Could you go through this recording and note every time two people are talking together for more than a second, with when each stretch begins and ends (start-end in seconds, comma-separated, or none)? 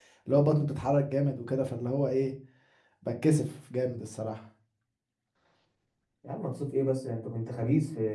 none